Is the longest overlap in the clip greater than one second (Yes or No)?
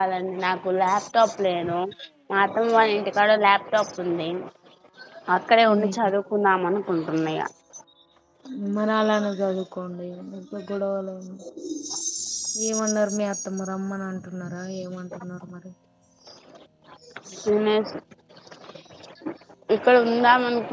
No